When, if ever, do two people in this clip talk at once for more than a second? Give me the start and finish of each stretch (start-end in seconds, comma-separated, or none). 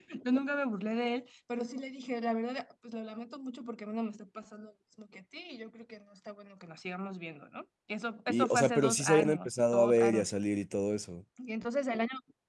8.3-10.3